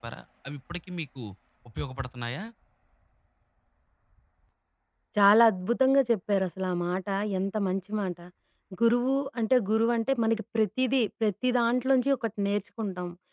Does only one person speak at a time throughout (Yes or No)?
Yes